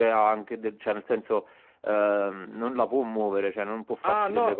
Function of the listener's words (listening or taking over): taking over